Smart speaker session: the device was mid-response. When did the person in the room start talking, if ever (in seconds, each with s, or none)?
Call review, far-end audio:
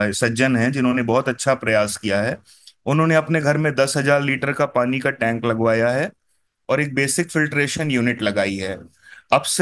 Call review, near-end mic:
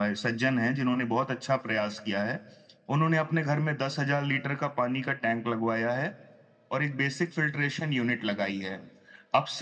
none